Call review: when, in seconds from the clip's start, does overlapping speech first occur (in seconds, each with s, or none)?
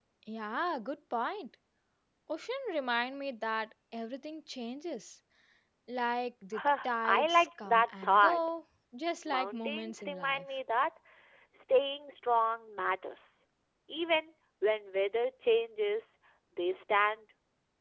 6.5 s